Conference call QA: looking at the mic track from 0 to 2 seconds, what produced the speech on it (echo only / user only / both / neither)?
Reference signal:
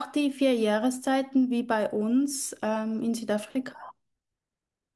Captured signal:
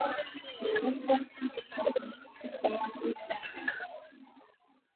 echo only